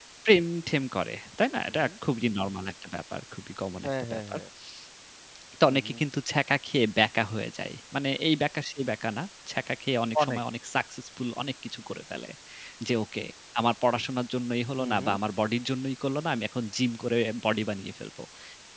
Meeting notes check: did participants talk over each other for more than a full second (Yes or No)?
No